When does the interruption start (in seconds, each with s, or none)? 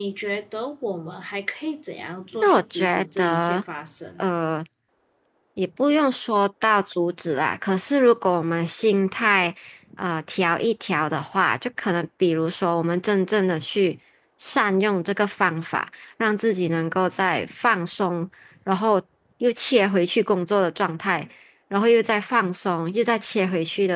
2.4 s